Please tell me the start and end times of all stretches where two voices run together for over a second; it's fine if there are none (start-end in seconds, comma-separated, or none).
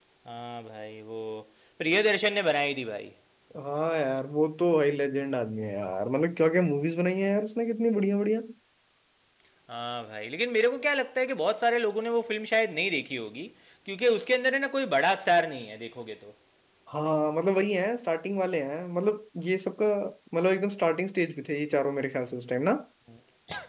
none